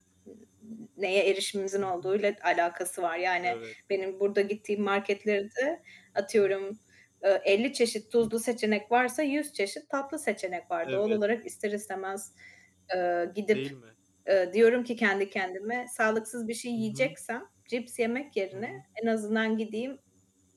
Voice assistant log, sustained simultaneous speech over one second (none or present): none